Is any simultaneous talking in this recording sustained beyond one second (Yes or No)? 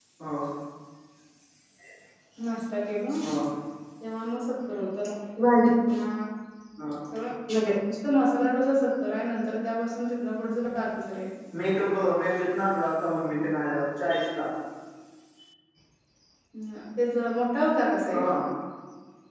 No